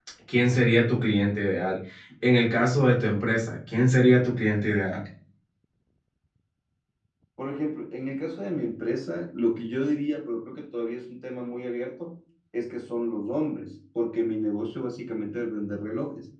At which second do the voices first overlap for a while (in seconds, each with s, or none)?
none